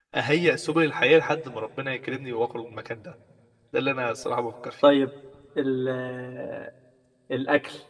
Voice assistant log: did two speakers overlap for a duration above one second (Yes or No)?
No